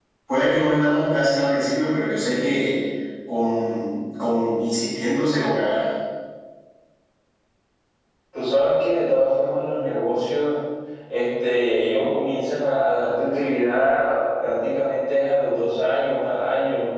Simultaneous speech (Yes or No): No